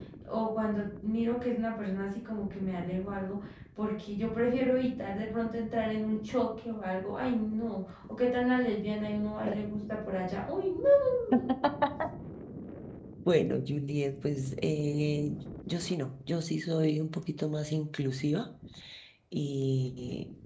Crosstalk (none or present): none